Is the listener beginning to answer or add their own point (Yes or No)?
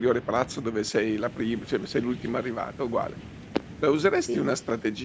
No